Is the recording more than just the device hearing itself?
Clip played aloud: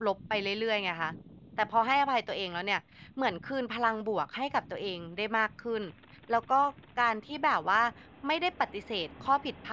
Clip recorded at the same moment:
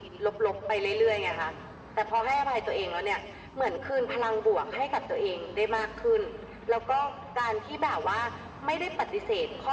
No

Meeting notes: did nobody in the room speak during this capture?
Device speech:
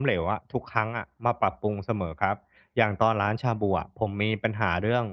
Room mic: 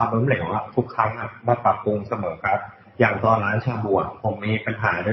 Yes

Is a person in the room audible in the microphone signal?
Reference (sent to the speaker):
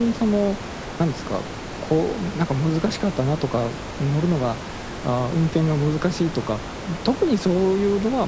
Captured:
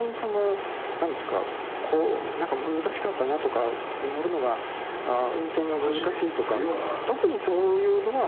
Yes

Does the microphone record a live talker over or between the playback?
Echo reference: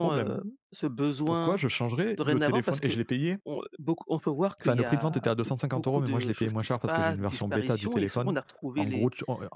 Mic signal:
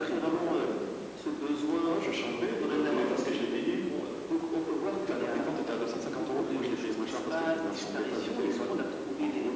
No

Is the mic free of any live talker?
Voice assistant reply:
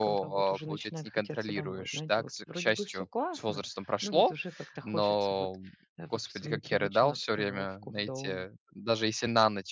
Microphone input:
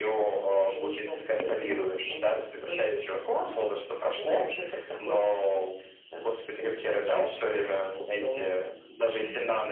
No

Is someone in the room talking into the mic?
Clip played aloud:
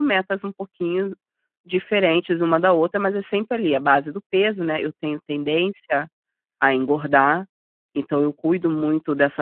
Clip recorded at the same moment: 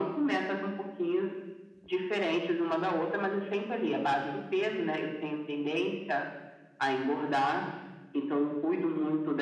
No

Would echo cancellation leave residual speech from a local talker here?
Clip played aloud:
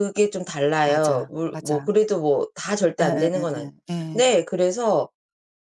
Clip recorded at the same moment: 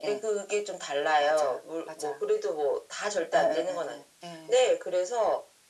No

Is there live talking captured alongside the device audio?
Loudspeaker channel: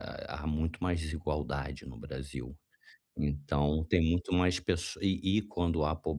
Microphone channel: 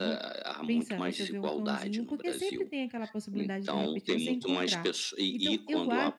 Yes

